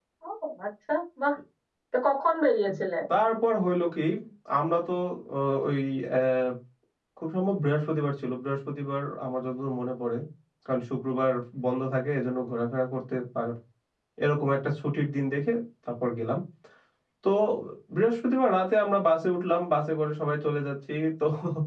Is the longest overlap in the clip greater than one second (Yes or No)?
No